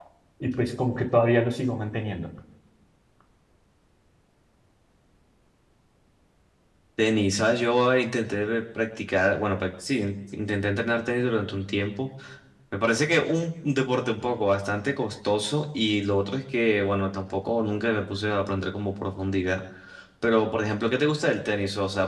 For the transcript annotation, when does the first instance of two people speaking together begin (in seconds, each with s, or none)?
none